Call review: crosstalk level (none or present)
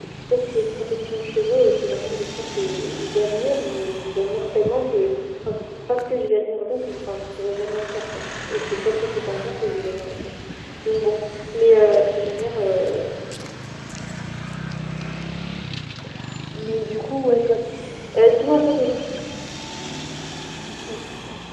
none